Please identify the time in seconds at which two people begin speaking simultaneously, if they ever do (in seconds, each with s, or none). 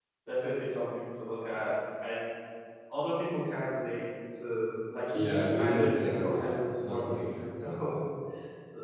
5.1 s